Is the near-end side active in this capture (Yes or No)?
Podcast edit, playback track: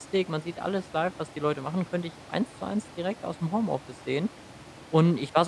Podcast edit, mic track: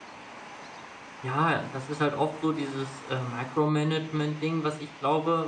Yes